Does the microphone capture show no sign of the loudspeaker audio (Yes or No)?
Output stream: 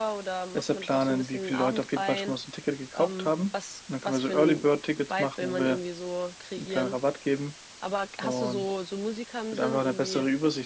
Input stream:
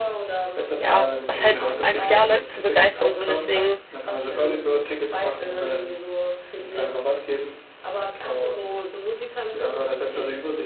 No